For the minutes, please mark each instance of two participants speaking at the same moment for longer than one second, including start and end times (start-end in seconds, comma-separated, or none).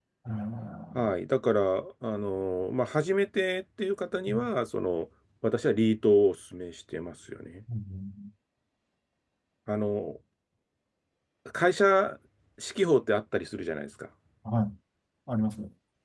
none